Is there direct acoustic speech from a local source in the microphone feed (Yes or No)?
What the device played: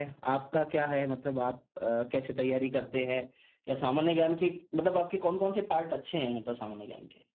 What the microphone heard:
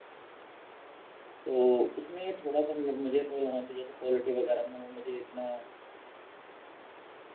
Yes